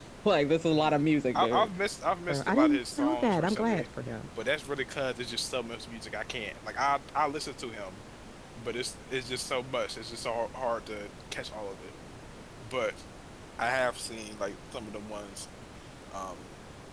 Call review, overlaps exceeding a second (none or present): present